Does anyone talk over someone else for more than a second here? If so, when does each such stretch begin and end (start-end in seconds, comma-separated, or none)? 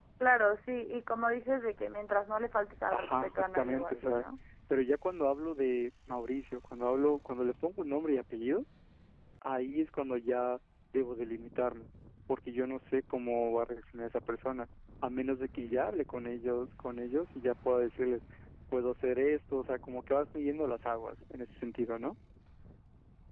2.9-4.2